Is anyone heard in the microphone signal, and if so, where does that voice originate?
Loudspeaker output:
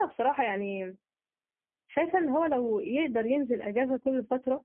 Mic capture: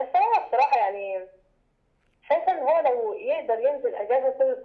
echo only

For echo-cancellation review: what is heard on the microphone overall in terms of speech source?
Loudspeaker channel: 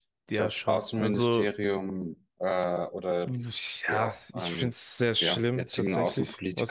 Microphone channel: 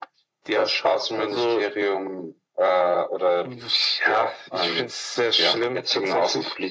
echo only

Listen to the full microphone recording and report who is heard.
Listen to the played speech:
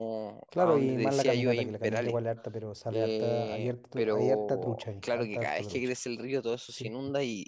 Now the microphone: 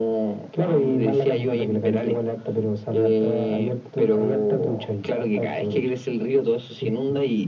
echo only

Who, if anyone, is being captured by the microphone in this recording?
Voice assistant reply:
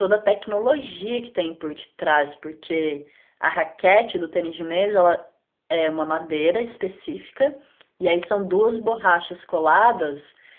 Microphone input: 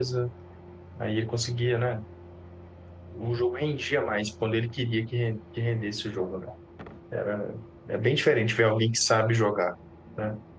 user only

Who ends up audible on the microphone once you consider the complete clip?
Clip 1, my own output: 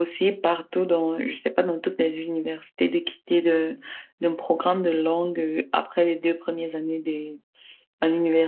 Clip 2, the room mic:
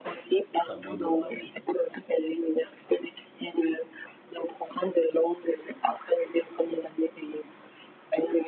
both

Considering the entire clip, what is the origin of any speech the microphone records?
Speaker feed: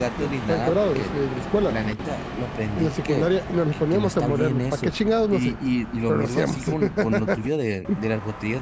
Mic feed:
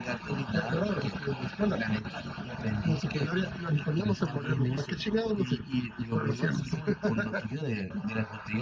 echo only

